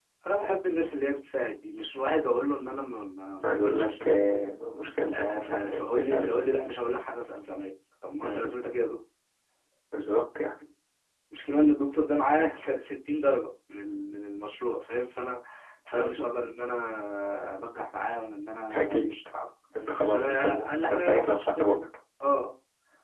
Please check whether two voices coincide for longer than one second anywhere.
Yes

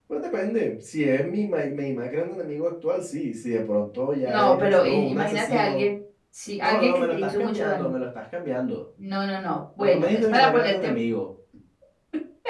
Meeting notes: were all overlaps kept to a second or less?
No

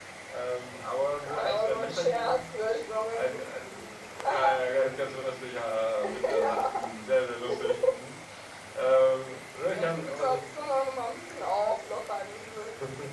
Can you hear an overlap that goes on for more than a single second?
Yes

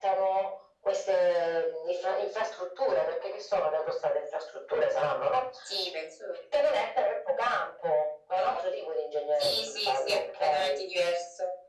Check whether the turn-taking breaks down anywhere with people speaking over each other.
Yes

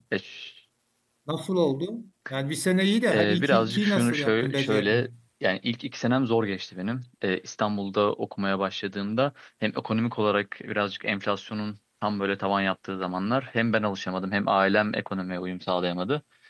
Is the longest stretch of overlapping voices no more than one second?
No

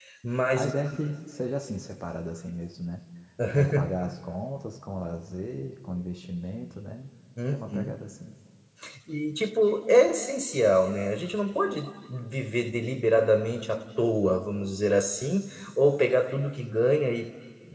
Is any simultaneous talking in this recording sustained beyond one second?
No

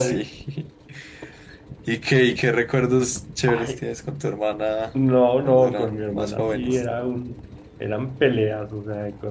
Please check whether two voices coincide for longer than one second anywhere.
Yes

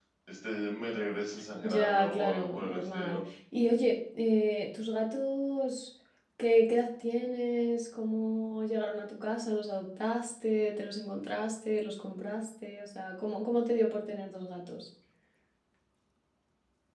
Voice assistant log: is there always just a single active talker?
No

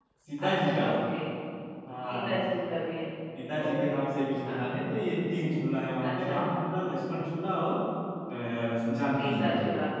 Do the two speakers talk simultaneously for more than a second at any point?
No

